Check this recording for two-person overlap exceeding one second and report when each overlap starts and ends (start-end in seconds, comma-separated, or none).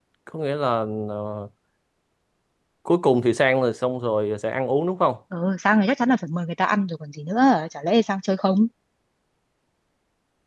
none